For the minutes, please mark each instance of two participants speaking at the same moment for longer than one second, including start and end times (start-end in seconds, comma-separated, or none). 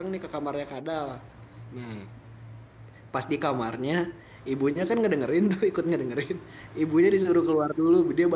none